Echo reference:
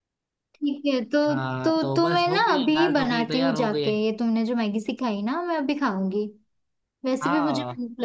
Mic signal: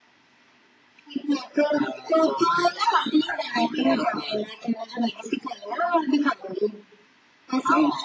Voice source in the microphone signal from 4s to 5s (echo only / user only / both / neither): echo only